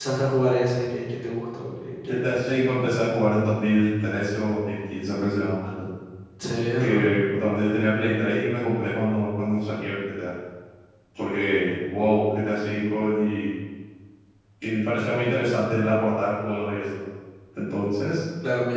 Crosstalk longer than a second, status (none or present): none